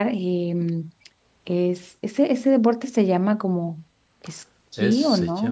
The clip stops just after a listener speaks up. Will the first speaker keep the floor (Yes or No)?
No